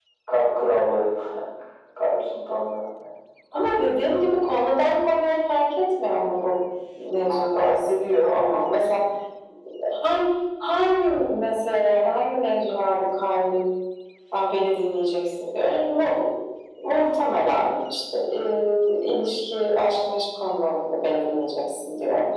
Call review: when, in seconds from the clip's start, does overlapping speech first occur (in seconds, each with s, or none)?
7.2 s